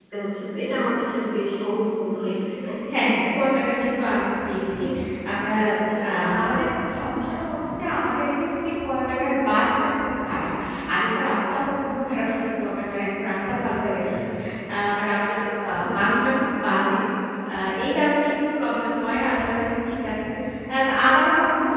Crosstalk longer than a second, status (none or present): none